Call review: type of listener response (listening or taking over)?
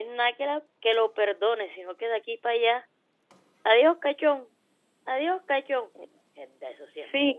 taking over